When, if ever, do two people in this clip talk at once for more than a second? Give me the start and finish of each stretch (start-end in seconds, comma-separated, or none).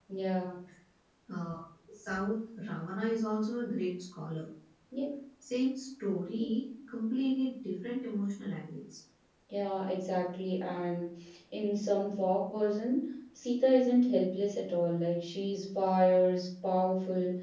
none